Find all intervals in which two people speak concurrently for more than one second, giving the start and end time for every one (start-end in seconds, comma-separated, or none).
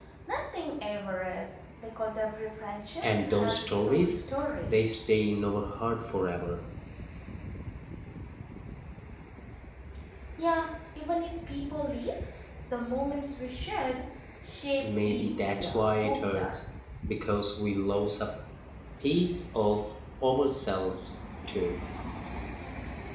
3.0-4.2, 14.8-16.6